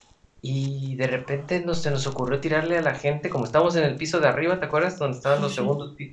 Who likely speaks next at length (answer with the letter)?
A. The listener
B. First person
B